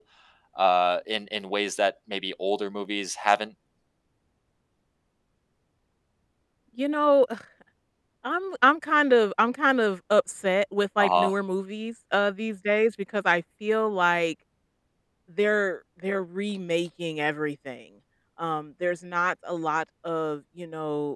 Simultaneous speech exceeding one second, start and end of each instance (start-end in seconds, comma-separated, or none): none